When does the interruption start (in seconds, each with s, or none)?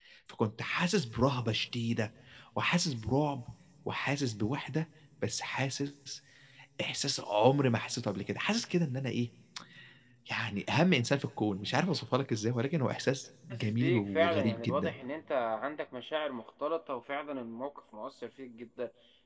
13.5 s